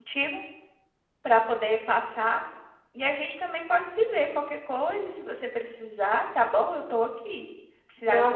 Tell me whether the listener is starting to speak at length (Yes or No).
No